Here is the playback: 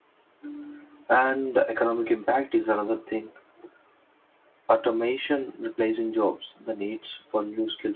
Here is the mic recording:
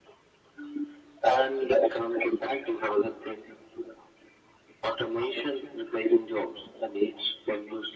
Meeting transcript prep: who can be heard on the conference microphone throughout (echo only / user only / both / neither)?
echo only